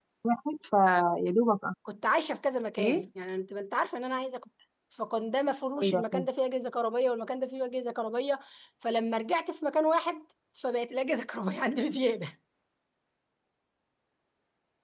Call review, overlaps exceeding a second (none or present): none